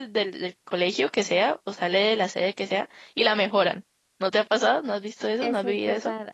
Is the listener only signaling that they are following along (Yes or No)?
No